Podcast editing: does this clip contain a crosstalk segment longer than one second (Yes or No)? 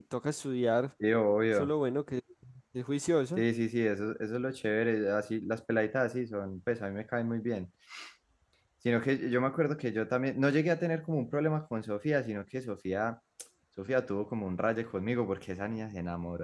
No